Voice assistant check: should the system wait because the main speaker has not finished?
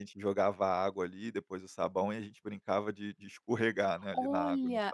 No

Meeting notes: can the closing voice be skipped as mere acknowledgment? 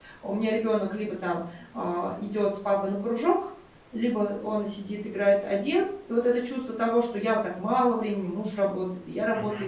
Yes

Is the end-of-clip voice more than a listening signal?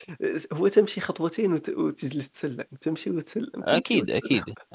Yes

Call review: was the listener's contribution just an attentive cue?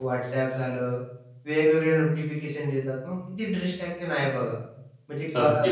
No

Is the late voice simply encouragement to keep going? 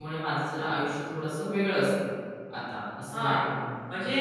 No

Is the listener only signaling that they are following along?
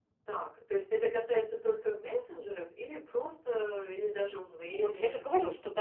No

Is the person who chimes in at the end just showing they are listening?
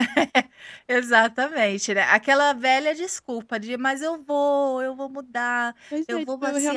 No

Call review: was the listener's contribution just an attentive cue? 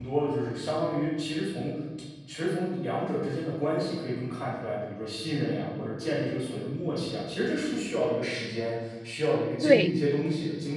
Yes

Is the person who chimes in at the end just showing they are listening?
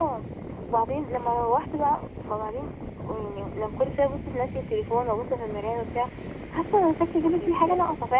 Yes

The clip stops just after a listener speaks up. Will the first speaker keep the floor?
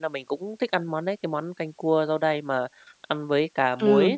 No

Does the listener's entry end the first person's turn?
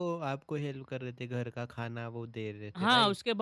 Yes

